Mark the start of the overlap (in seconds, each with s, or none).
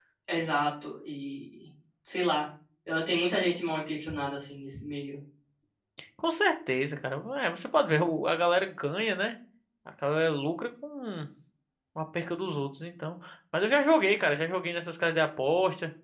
none